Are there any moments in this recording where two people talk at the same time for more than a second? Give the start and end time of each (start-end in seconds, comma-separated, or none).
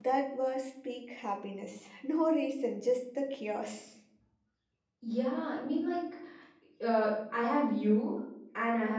none